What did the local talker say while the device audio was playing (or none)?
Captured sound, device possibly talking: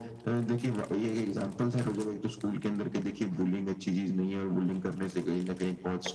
none